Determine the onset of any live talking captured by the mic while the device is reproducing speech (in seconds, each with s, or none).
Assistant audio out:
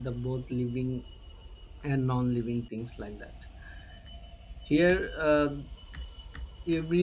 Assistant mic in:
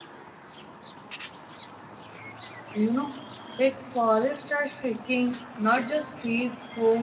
2.7 s